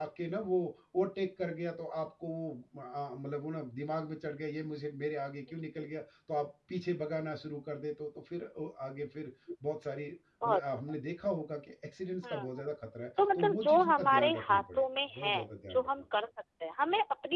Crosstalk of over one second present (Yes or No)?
Yes